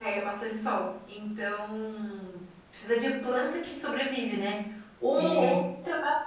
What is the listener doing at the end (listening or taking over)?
listening